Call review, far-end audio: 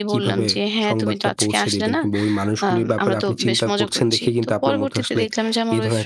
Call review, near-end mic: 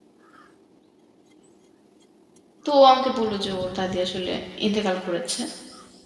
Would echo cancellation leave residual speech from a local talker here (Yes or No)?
Yes